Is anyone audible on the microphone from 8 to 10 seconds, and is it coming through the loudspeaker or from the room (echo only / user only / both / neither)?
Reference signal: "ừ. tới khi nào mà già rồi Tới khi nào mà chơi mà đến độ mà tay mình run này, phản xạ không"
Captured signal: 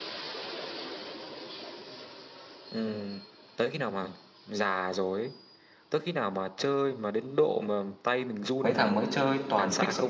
both